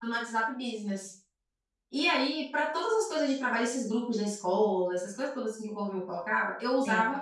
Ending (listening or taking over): listening